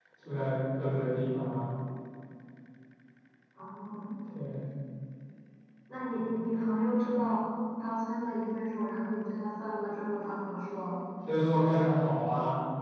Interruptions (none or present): none